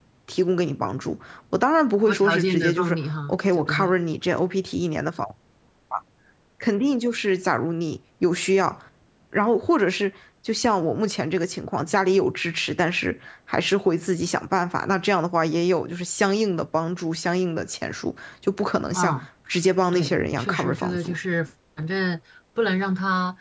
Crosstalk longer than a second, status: present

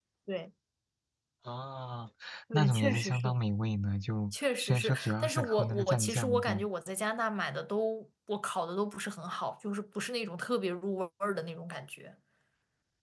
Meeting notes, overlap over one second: present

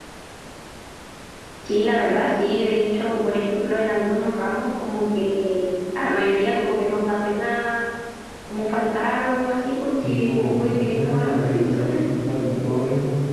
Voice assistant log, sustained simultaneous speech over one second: present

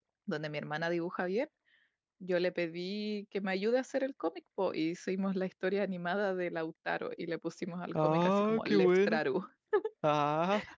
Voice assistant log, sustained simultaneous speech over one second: present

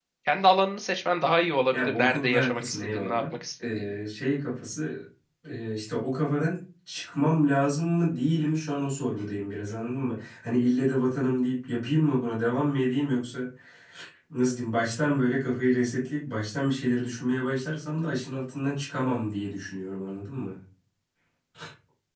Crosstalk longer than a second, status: present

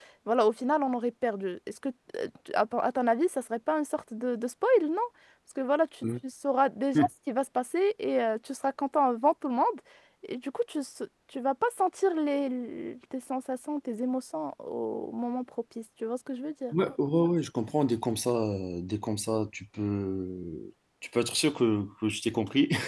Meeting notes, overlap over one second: none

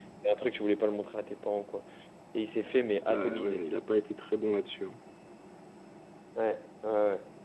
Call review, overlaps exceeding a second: none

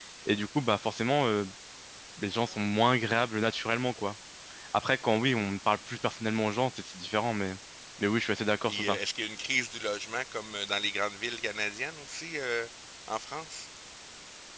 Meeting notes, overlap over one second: none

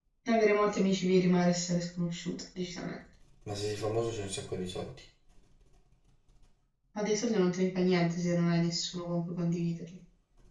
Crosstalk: none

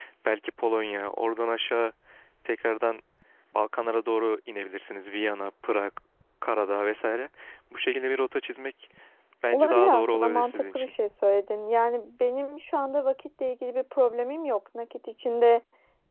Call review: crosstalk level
present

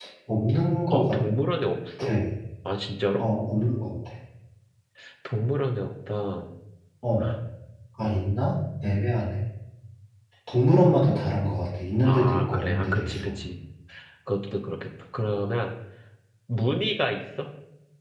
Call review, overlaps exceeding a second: present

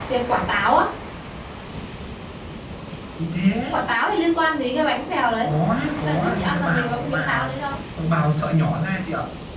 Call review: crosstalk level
present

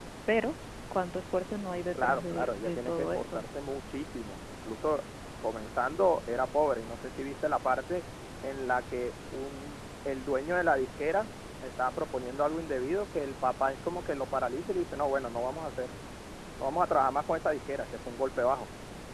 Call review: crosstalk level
present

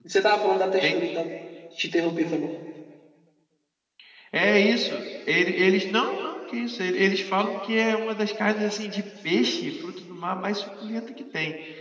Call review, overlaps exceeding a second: none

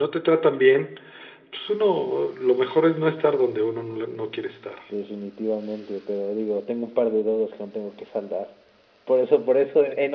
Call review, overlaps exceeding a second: none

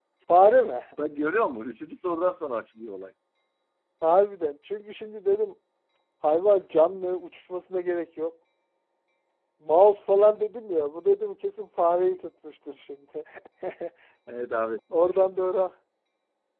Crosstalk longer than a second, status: none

